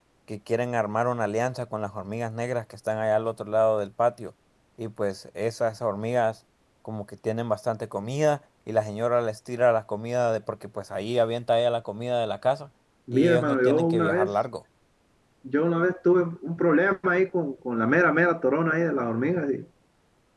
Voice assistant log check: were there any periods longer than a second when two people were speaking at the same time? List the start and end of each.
13.1-14.3

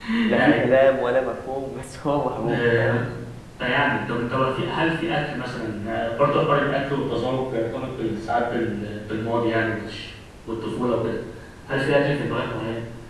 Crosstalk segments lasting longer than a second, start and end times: none

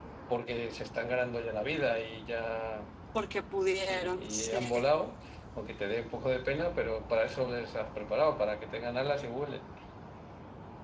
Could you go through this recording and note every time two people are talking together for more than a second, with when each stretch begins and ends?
3.8-5.0

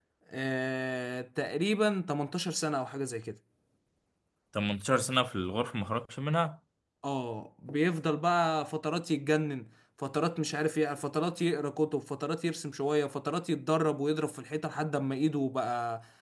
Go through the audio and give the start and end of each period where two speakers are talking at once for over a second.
none

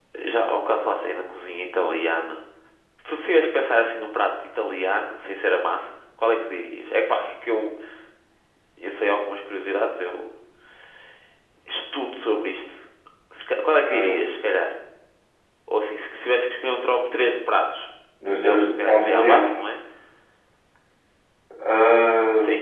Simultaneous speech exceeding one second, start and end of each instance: 18.3-19.5

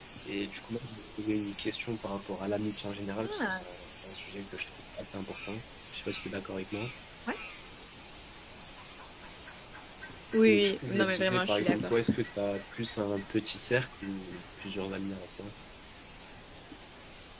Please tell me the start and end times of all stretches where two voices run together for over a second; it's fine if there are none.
10.5-11.9

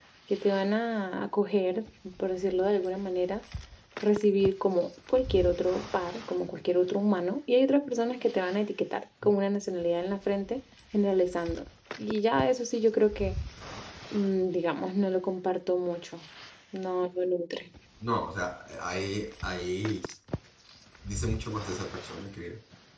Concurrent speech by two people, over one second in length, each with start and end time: none

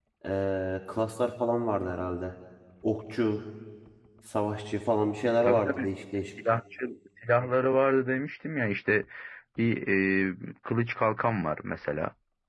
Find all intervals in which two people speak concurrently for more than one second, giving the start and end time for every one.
none

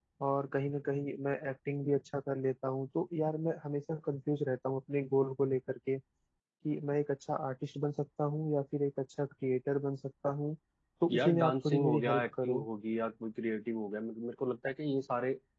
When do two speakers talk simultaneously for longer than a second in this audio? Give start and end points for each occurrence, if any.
11.1-12.7

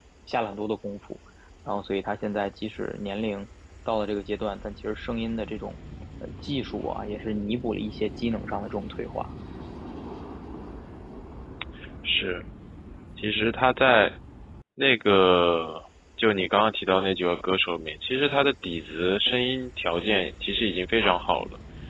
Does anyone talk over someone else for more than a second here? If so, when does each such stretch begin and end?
none

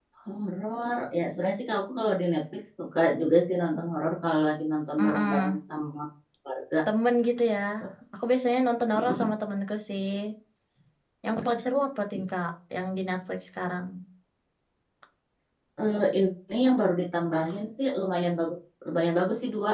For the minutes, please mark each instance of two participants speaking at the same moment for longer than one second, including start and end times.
none

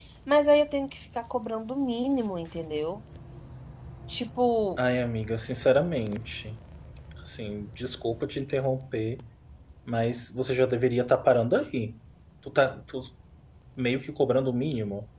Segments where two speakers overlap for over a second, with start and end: none

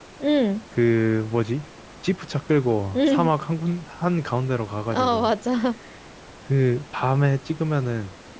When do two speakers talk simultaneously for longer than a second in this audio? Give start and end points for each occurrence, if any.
none

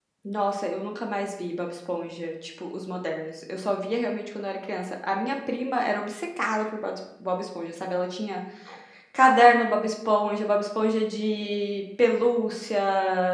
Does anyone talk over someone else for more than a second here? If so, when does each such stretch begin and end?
none

